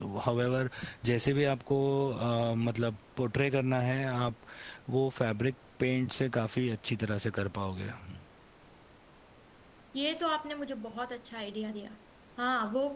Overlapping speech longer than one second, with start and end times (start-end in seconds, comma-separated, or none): none